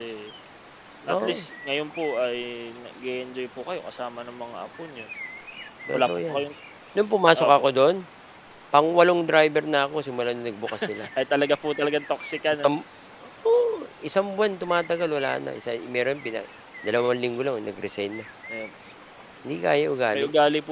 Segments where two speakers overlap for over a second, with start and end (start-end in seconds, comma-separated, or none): none